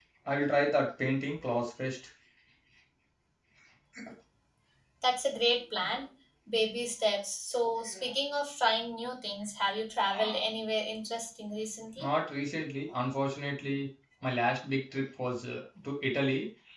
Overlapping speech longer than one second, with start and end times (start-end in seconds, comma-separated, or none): none